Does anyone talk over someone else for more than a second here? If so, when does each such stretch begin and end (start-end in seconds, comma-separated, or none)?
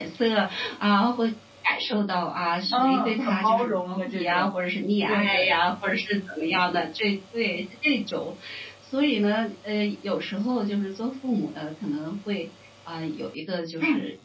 2.7-4.5